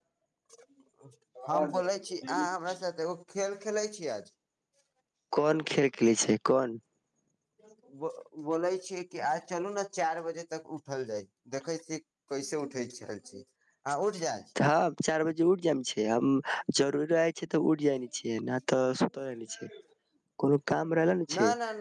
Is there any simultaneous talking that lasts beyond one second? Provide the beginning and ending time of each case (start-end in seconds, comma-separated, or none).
none